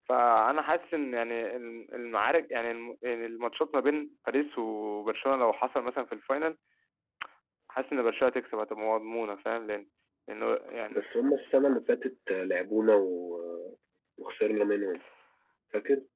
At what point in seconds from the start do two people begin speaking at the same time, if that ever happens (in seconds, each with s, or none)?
none